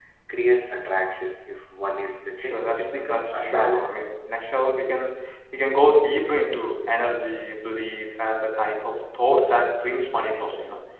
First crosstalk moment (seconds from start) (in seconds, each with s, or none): 2.4 s